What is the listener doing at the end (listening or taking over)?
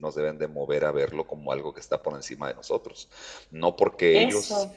listening